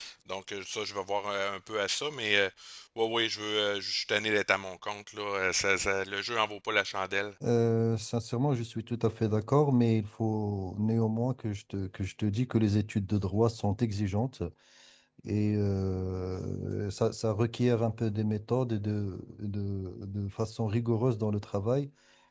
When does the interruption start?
none

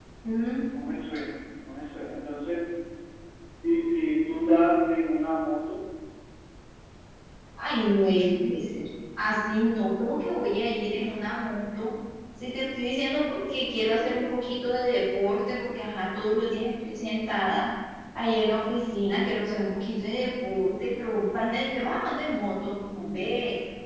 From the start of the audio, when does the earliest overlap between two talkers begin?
none

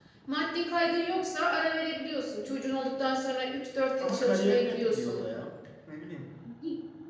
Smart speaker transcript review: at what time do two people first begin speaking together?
4 s

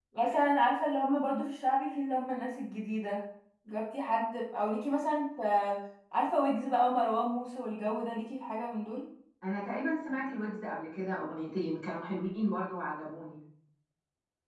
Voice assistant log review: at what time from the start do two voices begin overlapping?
none

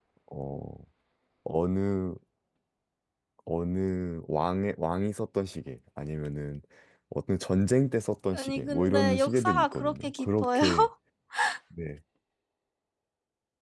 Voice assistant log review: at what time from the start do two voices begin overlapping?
8 s

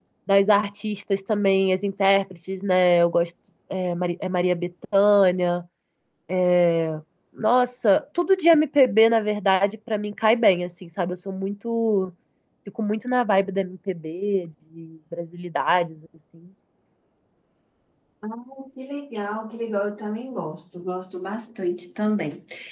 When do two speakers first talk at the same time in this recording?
none

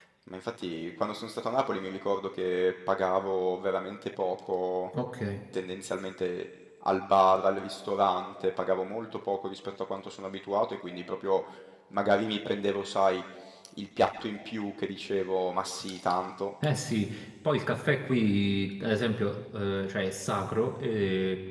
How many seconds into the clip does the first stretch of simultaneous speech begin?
none

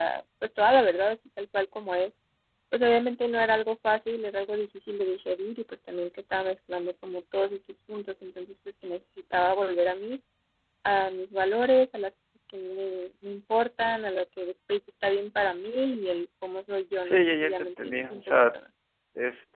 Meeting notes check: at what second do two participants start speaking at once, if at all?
17 s

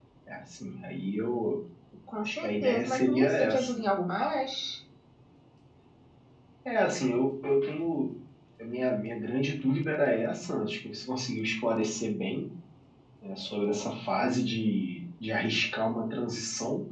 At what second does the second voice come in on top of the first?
2 s

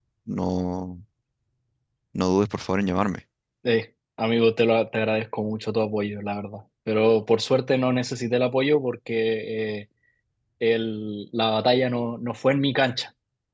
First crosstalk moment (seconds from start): none

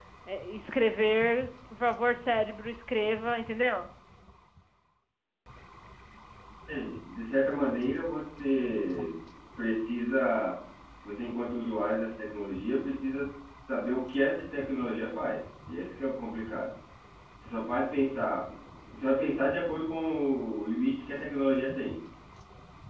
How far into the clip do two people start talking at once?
none

